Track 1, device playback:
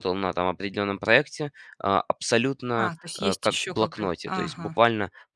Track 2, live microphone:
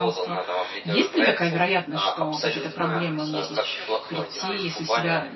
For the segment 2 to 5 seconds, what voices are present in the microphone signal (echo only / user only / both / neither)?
both